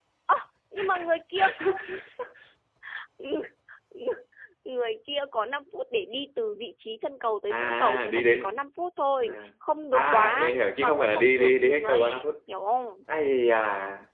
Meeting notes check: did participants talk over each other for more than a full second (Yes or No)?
Yes